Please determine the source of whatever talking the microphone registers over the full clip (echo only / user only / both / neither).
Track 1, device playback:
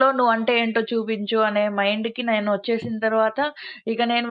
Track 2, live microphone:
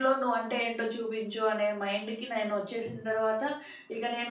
echo only